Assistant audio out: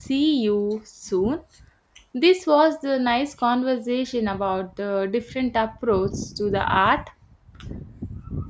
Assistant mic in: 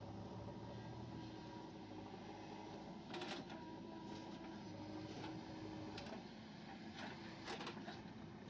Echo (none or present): none